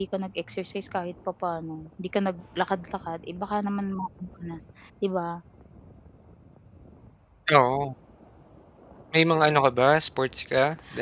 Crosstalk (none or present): none